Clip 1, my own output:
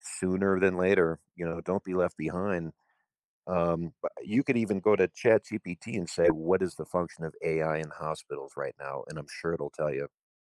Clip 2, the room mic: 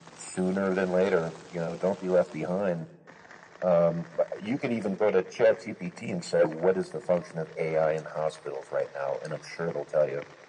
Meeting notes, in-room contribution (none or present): none